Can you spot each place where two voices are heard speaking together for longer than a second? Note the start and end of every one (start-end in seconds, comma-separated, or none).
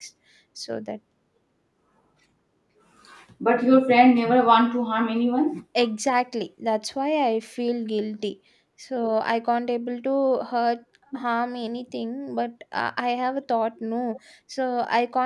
none